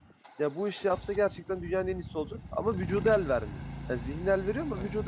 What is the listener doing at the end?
listening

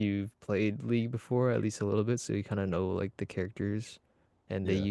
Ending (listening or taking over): listening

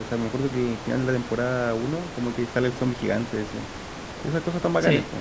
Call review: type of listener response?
listening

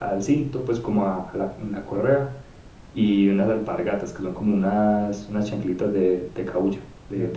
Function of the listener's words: taking over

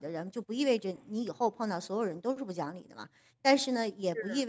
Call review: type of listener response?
listening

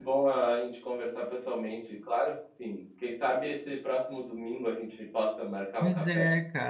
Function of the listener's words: taking over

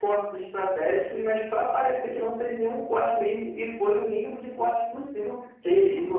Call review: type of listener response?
taking over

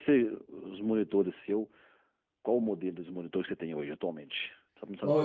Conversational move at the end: taking over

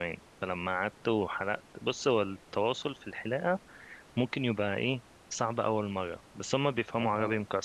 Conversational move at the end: listening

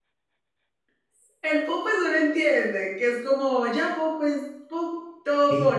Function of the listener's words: taking over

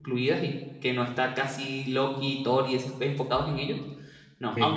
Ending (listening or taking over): listening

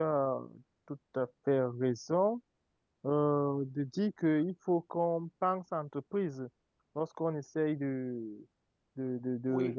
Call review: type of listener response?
listening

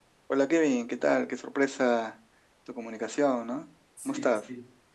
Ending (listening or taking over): taking over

